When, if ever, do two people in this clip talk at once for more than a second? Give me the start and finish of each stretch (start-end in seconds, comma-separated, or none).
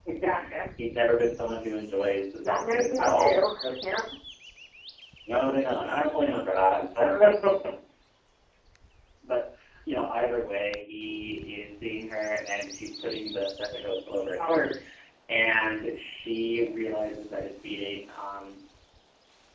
2.4-3.7